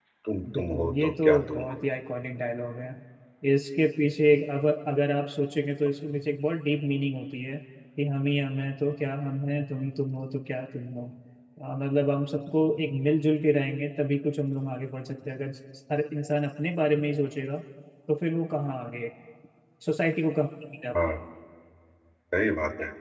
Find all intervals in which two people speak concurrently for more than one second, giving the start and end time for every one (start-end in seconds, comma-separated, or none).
0.5-1.8